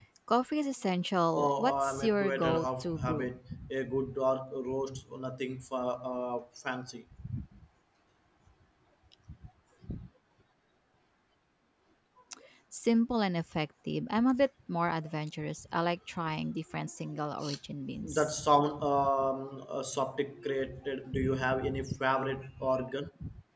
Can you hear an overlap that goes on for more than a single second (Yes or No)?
Yes